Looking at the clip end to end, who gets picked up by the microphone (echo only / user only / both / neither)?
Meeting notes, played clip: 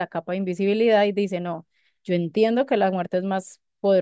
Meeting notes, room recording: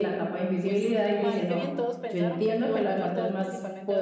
both